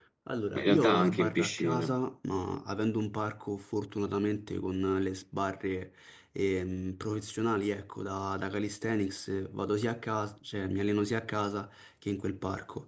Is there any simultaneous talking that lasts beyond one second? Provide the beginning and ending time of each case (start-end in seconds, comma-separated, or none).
0.5-1.9